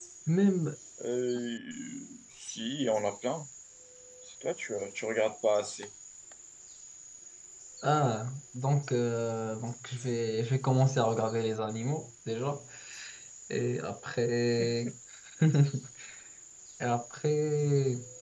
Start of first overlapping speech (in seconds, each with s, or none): none